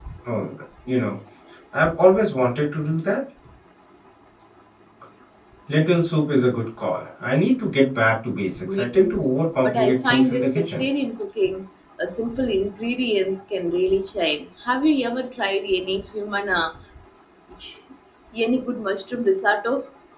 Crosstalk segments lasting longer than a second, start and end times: 9.6-10.8

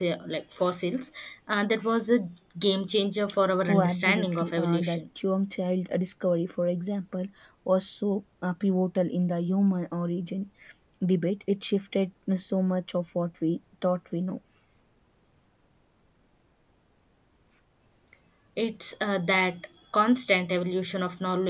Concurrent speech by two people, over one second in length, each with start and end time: 3.7-5.0

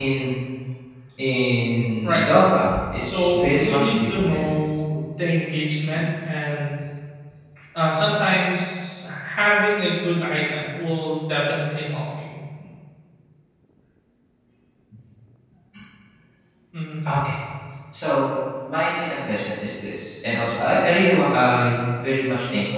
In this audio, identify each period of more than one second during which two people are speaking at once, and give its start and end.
3.1-4.4

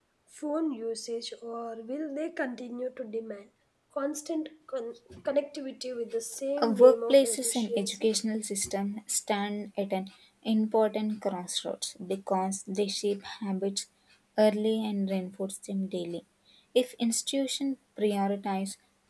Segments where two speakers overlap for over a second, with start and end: 6.6-8.1

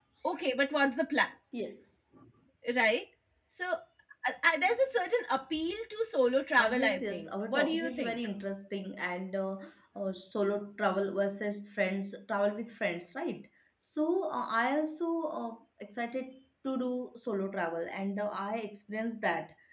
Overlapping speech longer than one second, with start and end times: 6.6-8.2

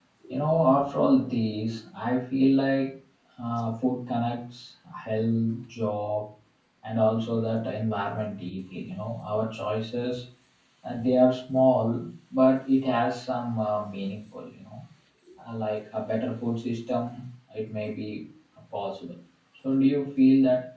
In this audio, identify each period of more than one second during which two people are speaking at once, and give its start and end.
none

